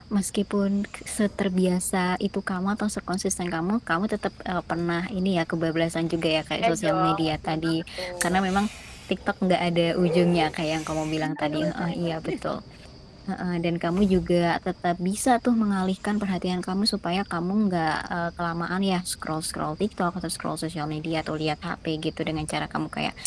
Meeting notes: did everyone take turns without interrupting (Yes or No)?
No